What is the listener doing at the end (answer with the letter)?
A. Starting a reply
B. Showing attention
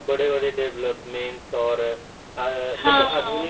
B